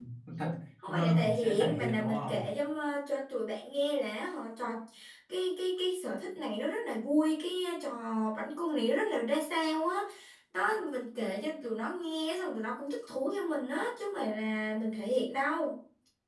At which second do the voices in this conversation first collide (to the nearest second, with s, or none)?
1 s